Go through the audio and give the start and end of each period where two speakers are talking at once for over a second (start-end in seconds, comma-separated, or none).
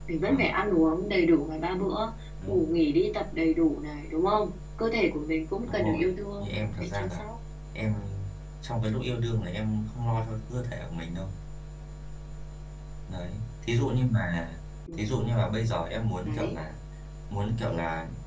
5.7-7.2